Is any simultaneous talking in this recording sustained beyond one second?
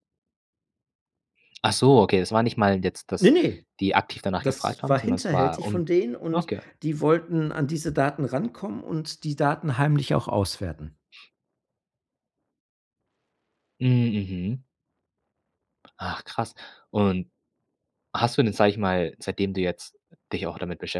Yes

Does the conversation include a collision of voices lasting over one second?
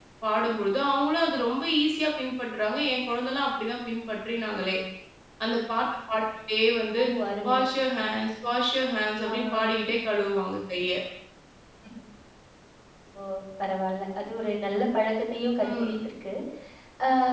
No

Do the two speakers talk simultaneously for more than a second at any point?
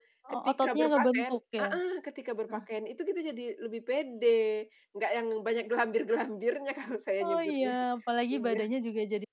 Yes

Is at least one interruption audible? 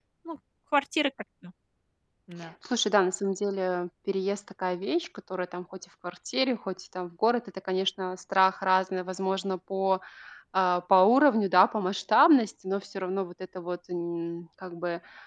No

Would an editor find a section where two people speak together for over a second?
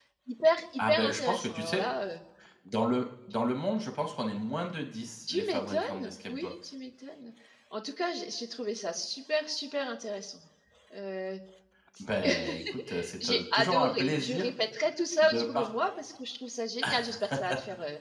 Yes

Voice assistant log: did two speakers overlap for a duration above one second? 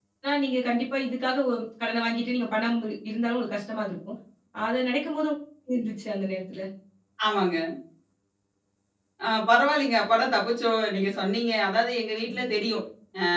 No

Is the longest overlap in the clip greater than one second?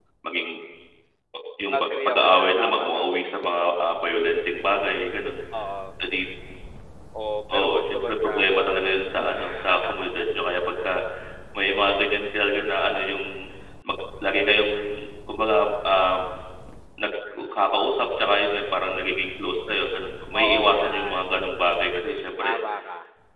Yes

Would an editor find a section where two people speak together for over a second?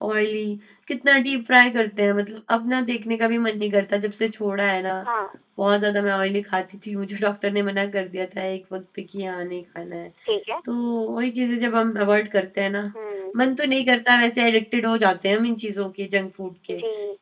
No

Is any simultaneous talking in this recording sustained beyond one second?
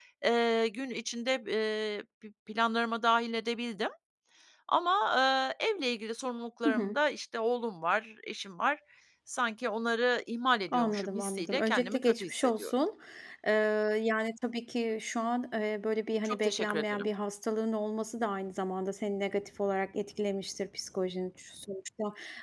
Yes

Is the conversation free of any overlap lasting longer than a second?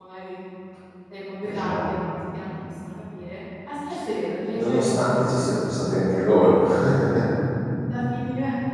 No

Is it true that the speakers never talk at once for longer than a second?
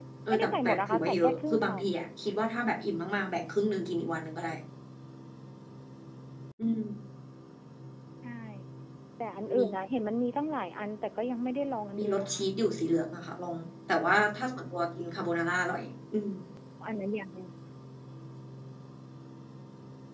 No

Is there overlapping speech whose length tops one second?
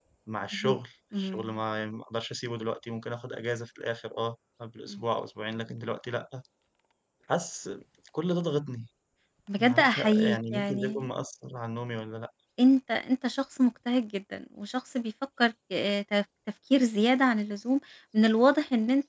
Yes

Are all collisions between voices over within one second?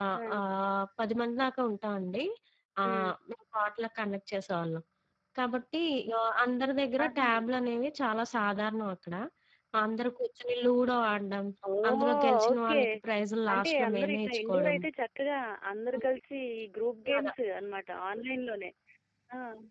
No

